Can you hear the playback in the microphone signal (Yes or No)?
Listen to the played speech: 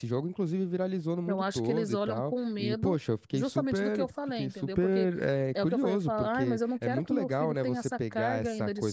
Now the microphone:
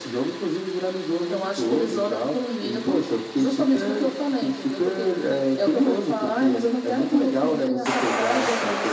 Yes